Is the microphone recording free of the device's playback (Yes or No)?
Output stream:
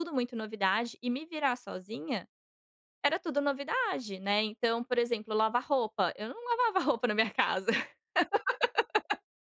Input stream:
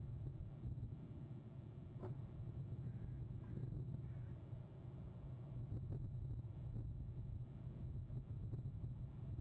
Yes